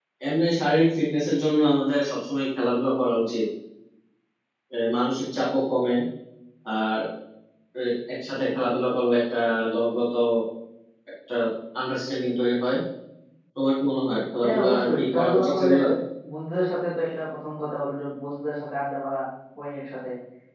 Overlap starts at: 14.4 s

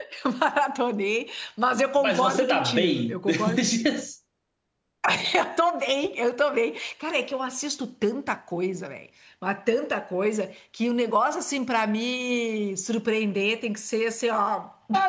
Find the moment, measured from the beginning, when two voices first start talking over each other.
2.0 s

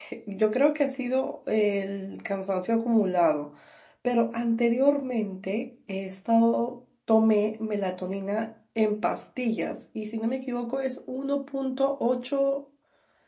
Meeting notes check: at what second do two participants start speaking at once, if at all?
none

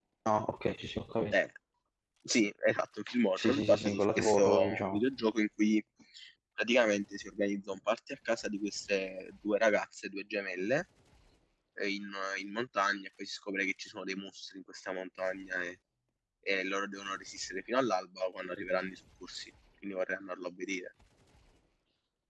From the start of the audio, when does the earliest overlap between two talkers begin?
3.4 s

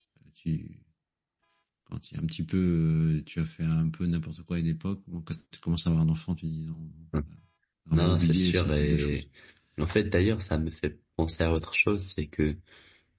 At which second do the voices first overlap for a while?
7.9 s

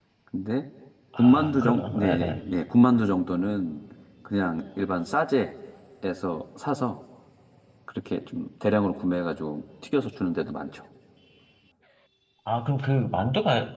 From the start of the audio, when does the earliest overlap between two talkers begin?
1.1 s

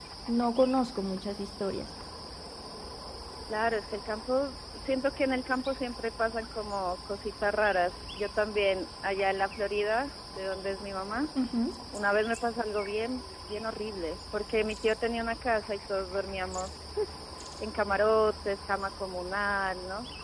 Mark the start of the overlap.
none

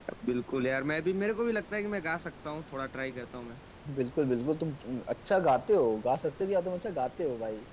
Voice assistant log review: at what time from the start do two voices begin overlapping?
none

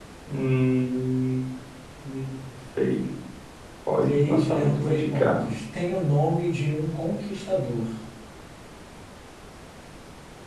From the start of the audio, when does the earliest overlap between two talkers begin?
4.0 s

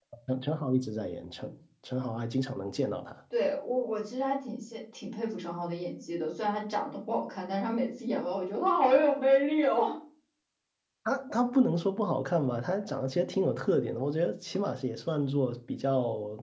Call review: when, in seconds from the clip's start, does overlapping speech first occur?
none

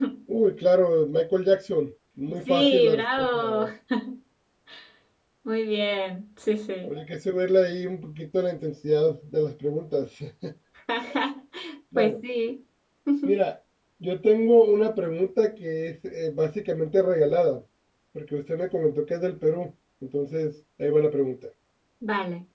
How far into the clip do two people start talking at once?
2.3 s

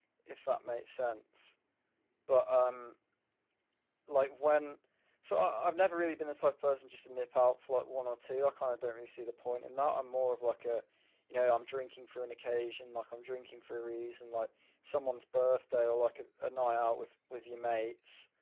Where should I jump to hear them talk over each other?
none

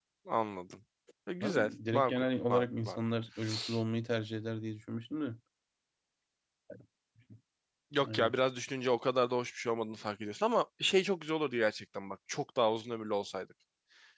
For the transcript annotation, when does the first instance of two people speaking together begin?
1.4 s

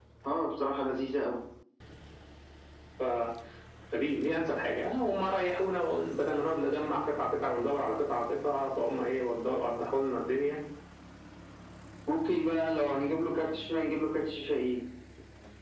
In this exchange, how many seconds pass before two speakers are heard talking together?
none

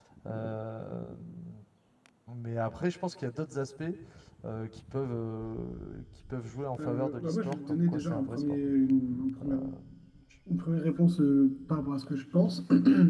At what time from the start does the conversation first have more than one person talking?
6.8 s

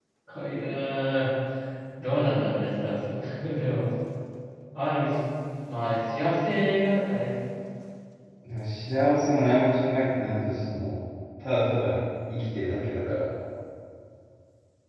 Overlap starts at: none

